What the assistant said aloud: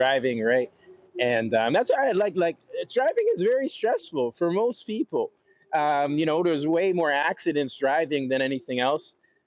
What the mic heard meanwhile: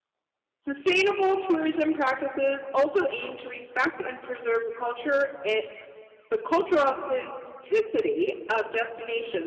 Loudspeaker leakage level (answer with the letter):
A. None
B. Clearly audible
A